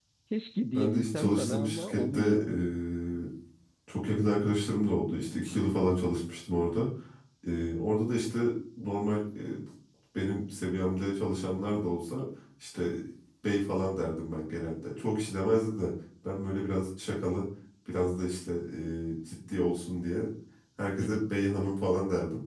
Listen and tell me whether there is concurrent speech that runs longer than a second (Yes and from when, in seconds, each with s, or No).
Yes, from 0.7 s